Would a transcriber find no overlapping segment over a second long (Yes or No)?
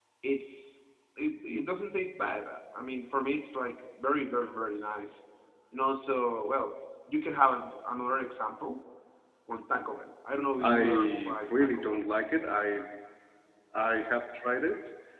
No